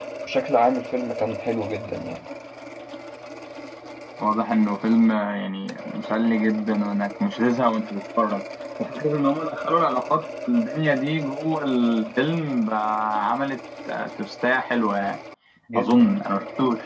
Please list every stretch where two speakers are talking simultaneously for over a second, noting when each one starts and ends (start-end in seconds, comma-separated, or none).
none